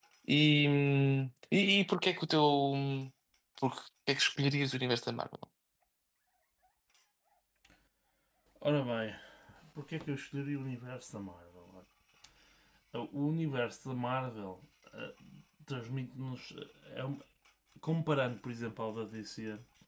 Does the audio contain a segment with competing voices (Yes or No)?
No